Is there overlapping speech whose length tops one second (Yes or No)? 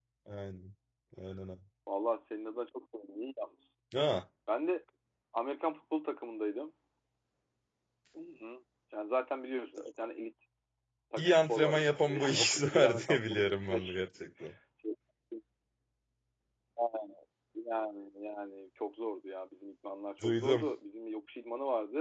Yes